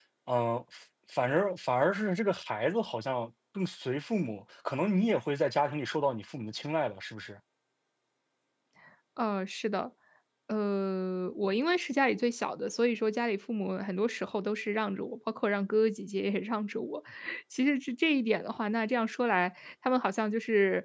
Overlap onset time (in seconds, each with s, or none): none